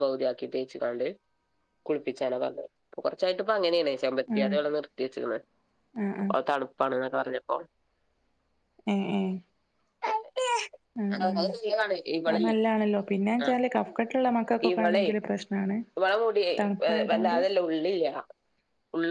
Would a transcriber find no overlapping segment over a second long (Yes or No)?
Yes